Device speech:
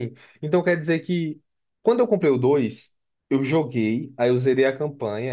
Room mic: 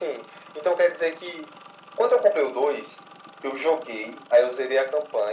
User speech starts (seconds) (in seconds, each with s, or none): none